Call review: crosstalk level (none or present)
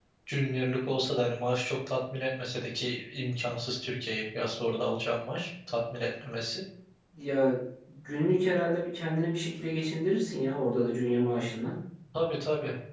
none